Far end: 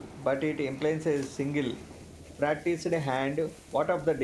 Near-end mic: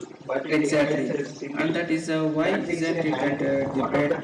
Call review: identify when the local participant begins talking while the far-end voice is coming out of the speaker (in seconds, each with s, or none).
0.5 s